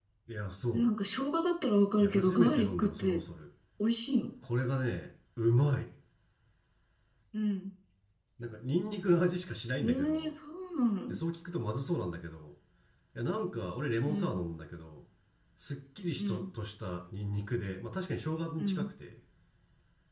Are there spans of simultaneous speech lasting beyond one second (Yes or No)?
Yes